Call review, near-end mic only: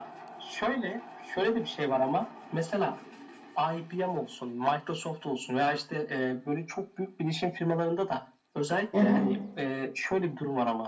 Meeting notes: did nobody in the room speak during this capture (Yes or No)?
No